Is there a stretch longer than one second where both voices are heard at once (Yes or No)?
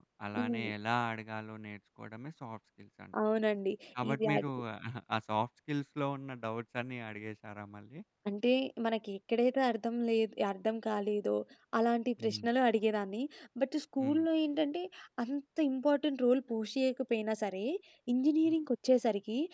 No